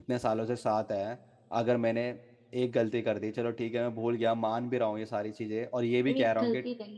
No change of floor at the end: No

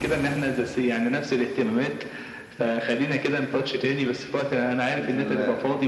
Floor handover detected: No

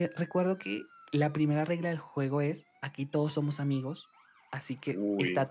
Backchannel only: Yes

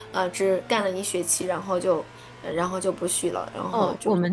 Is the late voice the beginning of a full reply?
Yes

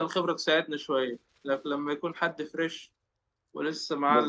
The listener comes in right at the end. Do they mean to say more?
Yes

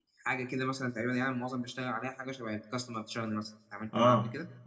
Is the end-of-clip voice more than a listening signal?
Yes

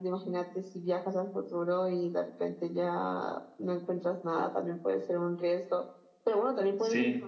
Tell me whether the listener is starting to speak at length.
No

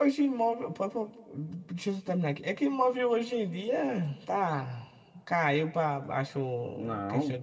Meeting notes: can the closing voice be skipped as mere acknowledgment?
Yes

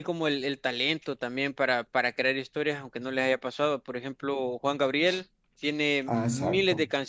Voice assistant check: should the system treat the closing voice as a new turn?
No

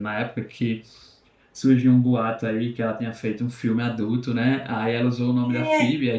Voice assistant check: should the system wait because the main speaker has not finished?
Yes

